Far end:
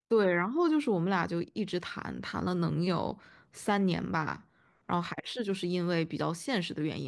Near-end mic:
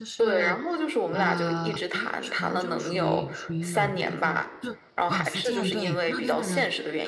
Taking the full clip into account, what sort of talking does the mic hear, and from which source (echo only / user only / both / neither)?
both